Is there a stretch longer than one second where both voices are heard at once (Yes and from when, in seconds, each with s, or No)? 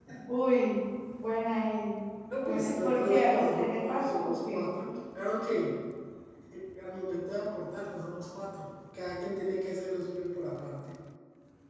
Yes, from 2.4 s